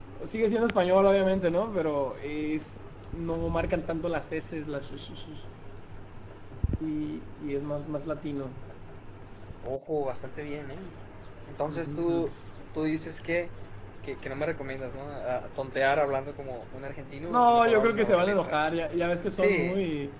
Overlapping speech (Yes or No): Yes